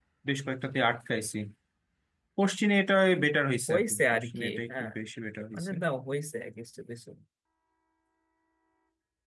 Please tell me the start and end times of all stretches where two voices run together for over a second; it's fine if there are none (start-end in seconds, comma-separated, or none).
3.7-4.9